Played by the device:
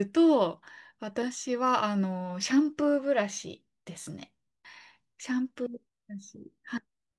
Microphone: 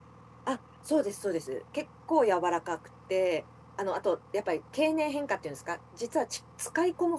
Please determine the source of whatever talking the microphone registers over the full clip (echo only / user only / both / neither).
user only